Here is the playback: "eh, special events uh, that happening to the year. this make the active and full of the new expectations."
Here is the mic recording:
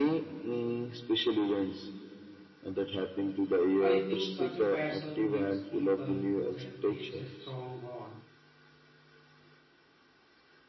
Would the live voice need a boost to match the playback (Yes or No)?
Yes